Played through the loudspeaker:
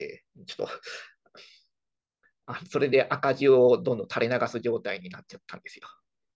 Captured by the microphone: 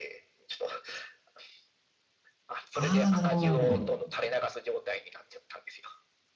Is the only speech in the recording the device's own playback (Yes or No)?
No